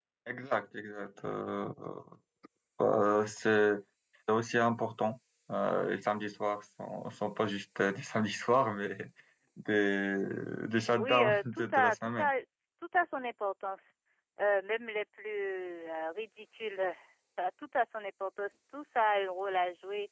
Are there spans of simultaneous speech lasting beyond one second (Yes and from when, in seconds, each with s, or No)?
Yes, from 11.0 s